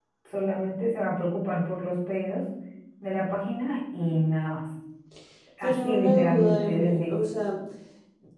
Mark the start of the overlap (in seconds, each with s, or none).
5.6 s